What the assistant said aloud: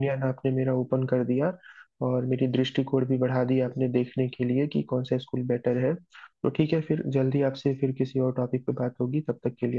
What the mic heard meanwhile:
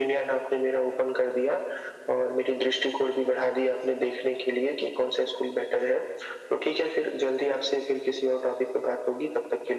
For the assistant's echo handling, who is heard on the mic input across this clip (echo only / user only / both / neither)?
echo only